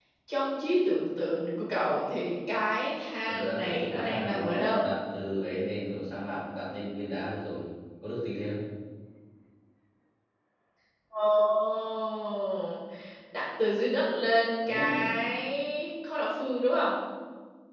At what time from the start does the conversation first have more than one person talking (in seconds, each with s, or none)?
3.3 s